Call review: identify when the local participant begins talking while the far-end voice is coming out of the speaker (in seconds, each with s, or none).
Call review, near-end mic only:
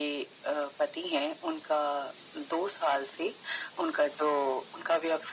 none